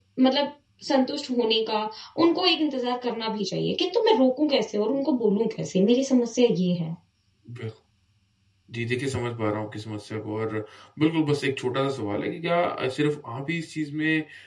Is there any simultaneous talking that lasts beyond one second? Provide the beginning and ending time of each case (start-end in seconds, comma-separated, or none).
none